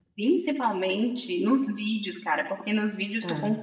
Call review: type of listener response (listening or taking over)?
listening